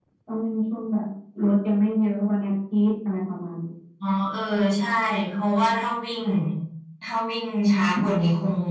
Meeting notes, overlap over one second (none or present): none